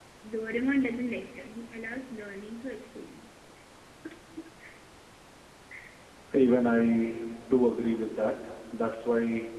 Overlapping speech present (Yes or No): No